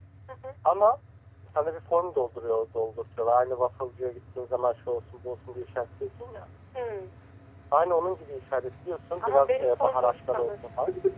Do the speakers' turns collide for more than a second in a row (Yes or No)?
Yes